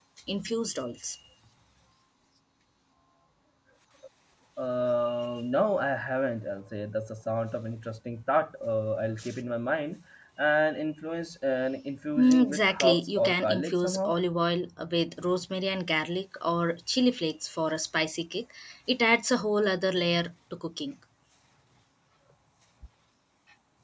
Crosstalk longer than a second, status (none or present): present